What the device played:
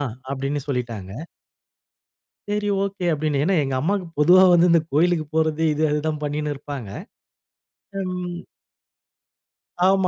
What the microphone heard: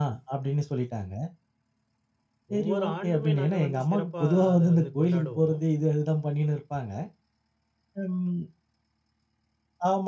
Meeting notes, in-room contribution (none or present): present